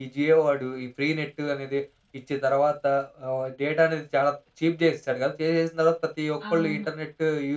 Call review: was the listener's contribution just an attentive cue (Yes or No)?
Yes